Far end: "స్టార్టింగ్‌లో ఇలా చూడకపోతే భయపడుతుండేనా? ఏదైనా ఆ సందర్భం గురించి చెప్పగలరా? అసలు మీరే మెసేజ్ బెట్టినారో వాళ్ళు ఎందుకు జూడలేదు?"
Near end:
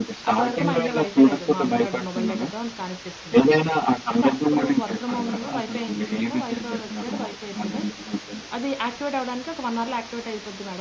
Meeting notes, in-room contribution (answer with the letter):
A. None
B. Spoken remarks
B